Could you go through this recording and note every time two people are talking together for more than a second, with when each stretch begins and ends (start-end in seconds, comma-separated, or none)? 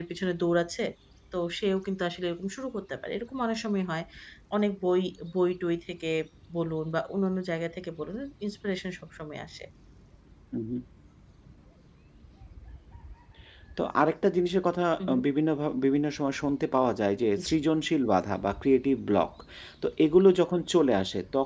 none